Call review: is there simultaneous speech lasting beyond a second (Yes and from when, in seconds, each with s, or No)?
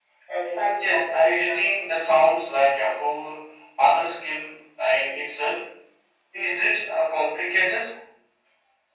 Yes, from 0.6 s